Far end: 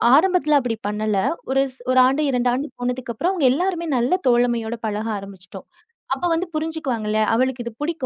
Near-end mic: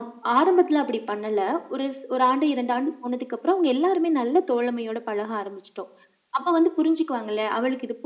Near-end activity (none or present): none